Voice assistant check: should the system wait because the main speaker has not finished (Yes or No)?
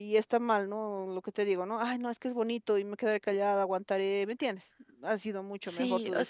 No